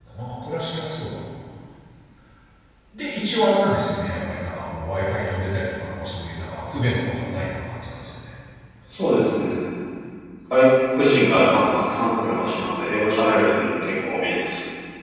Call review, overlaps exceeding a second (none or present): none